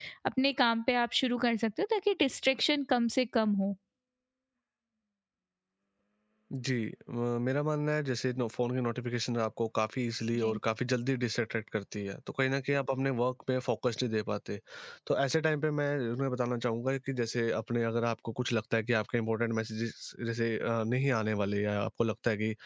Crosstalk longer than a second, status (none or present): none